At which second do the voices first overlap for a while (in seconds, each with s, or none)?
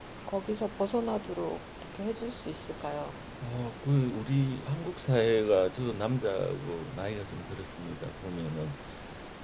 none